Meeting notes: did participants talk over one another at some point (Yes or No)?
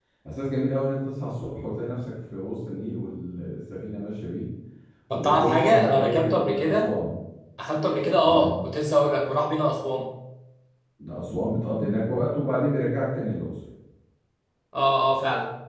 Yes